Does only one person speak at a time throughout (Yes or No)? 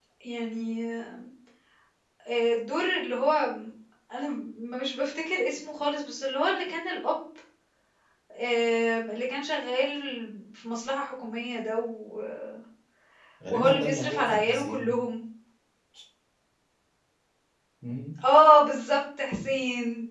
No